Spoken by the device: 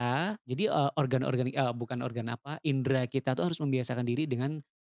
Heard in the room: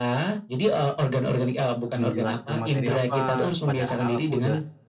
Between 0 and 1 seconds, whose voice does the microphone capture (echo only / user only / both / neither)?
echo only